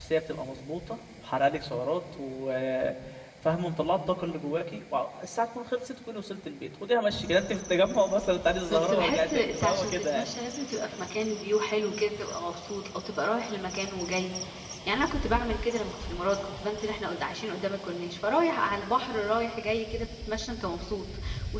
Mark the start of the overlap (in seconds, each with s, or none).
8.7 s